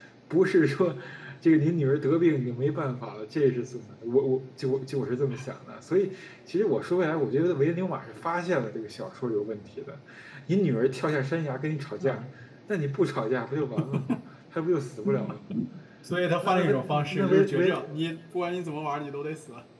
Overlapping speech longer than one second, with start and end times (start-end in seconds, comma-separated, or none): 16.4-17.7